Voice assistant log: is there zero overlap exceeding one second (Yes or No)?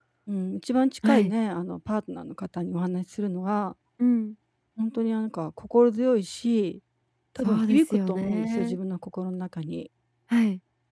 No